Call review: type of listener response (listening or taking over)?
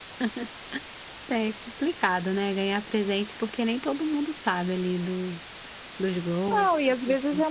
taking over